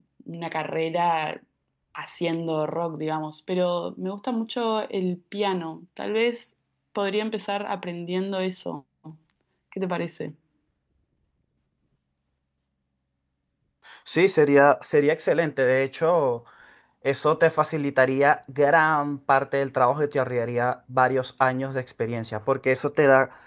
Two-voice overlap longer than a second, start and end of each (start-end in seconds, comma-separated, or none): none